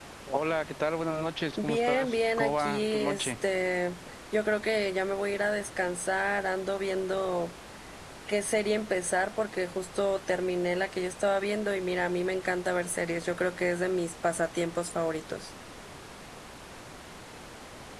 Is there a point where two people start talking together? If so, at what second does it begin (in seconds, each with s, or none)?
1.6 s